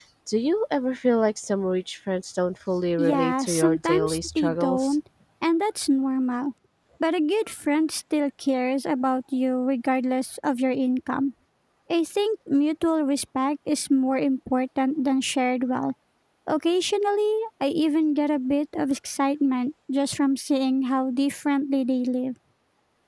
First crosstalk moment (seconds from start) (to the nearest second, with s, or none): 3 s